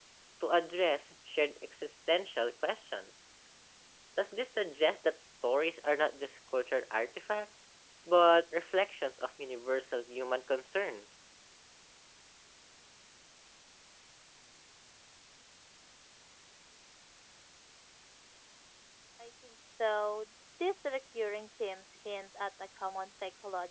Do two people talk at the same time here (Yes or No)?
No